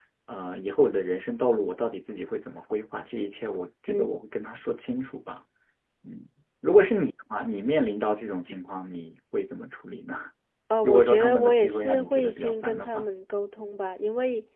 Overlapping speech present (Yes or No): Yes